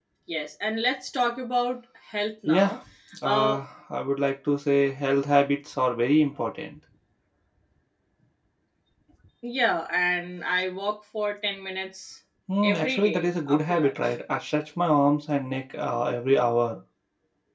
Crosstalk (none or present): present